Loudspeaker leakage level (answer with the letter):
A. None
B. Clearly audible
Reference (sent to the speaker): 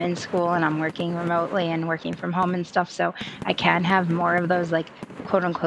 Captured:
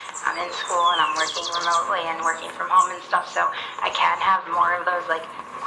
B